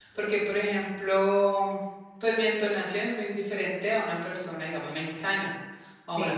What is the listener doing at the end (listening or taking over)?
listening